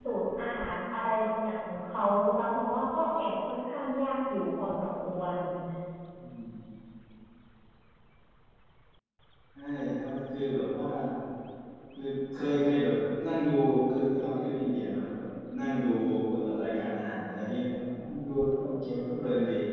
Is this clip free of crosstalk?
Yes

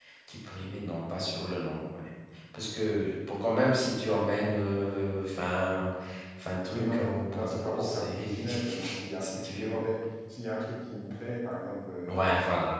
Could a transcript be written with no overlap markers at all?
No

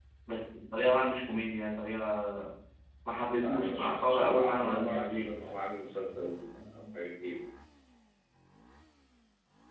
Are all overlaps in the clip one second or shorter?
No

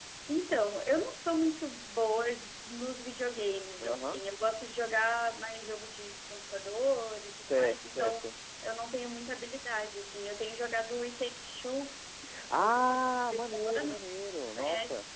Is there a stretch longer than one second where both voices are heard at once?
Yes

